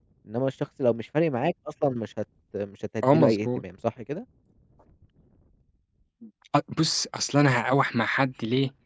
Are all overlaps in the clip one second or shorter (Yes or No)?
Yes